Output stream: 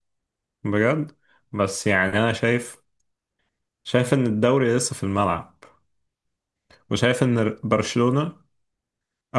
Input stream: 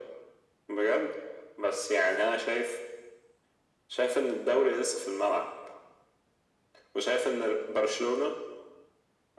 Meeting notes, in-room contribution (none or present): none